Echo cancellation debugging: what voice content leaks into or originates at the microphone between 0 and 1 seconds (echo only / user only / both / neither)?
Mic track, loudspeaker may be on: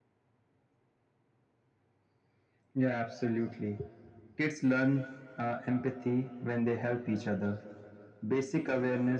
neither